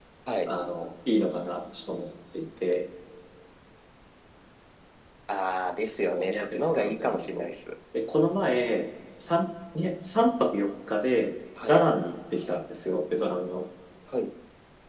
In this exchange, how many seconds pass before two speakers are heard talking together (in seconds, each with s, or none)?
5.9 s